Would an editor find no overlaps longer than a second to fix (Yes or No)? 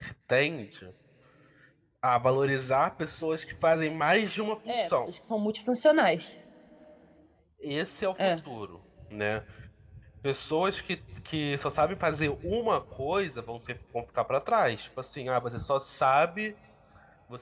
Yes